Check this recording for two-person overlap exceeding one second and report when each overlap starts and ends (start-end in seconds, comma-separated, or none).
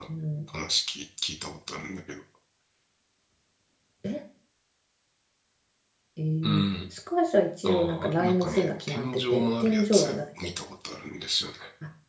7.6-10.2